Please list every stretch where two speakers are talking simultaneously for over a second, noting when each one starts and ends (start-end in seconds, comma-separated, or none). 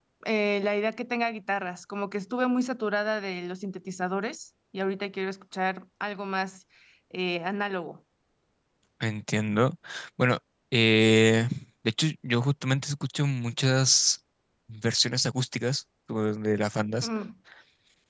none